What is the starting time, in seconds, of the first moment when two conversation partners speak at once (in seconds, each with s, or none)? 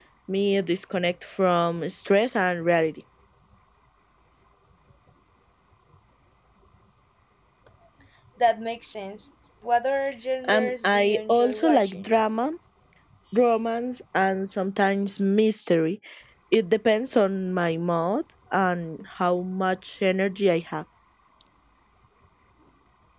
10.4 s